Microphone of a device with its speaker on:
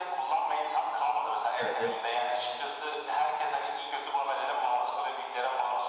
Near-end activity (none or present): present